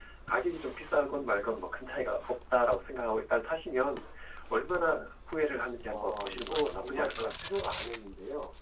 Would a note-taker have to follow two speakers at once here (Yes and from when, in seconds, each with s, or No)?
Yes, from 5.9 s